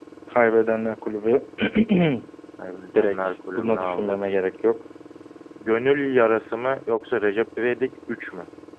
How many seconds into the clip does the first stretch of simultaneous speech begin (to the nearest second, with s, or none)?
3 s